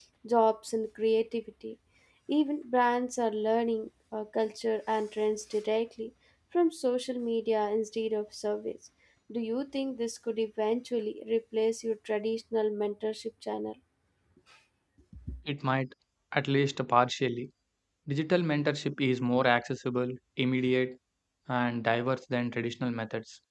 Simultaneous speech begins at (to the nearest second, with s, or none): none